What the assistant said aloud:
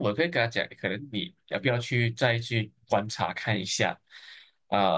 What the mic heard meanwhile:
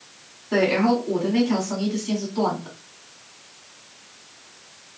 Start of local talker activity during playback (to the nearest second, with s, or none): 0 s